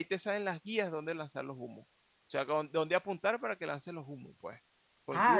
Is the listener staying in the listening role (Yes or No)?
No